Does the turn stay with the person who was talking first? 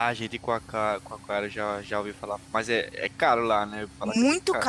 No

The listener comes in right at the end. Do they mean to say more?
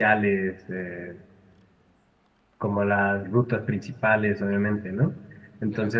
No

